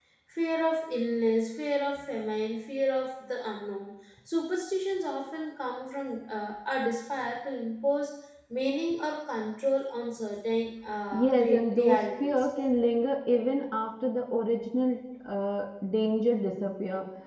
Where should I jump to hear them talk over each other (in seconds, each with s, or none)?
11.1 s